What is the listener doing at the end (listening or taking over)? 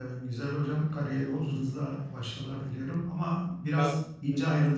listening